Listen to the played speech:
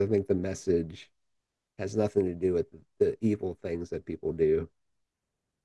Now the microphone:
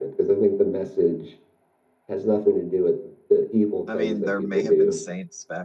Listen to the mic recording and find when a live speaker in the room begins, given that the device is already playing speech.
3.9 s

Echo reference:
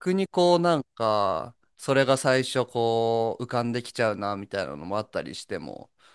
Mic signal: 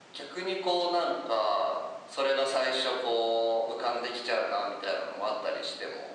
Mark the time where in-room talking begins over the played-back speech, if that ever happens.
none

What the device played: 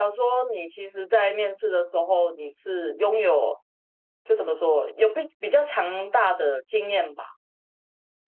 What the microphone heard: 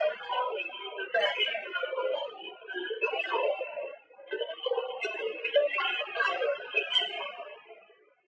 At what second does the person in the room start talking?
none

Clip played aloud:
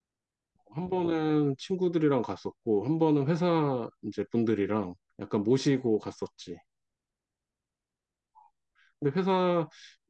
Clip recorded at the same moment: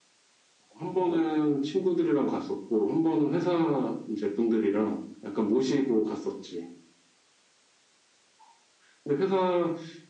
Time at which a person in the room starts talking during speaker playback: none

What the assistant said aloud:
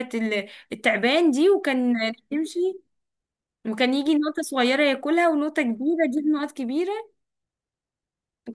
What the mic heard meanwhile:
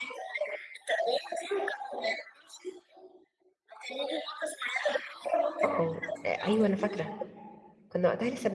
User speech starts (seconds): 5.6 s

